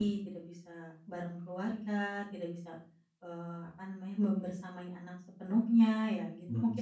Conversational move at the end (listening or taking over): taking over